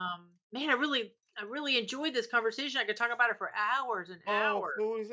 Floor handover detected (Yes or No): Yes